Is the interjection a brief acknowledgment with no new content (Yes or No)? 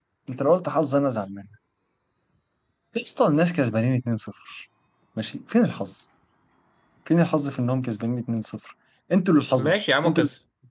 No